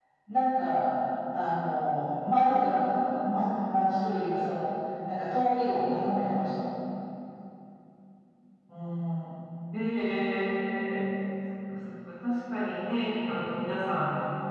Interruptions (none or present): none